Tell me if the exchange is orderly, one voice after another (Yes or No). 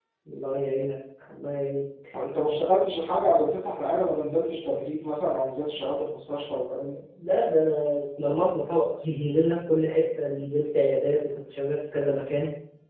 Yes